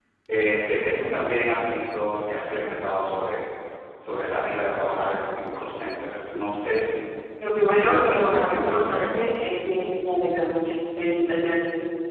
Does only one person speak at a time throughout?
No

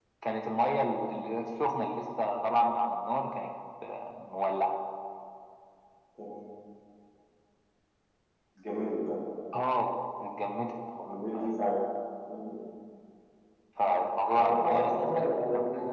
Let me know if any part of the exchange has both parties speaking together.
Yes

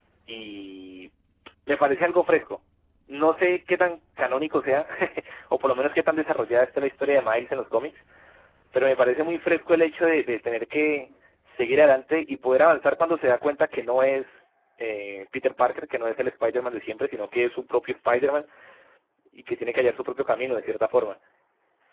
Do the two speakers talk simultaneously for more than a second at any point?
No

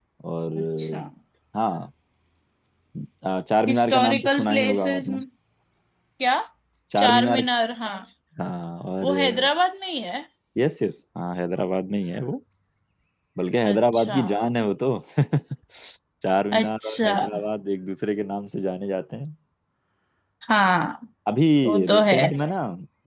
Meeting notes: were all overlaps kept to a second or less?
No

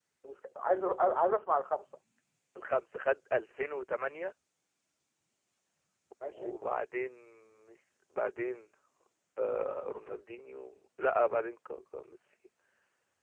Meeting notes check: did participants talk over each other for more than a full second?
No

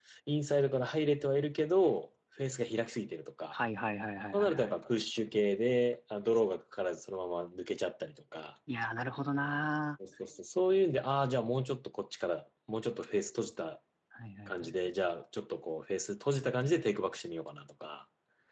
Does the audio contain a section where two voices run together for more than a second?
No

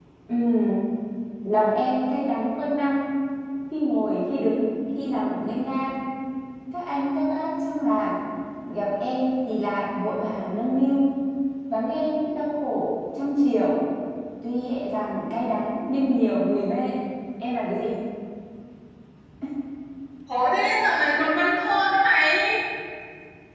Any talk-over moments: No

